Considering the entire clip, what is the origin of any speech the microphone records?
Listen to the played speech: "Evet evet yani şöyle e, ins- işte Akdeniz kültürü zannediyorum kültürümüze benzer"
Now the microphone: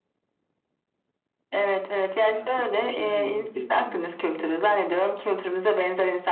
both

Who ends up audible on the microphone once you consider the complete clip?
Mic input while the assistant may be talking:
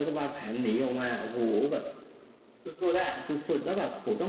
echo only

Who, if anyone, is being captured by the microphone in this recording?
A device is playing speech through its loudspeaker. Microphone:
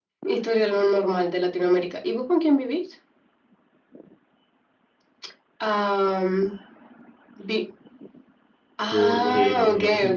both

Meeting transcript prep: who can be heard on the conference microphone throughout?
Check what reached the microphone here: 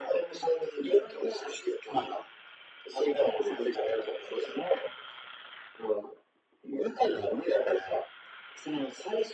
echo only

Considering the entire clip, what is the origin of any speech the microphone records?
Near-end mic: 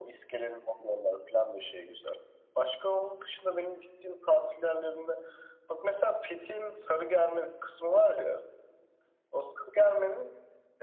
echo only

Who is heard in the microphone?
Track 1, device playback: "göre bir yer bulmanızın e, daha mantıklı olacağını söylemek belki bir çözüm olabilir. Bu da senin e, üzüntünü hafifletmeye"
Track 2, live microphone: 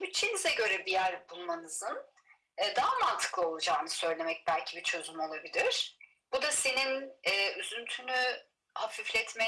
echo only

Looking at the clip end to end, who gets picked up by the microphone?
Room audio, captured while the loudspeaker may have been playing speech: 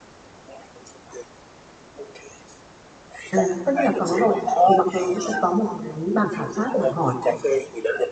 both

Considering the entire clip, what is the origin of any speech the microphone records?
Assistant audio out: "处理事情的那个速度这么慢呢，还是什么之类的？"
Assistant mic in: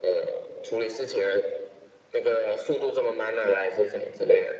echo only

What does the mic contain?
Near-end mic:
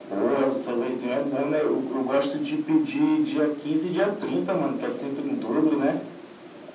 echo only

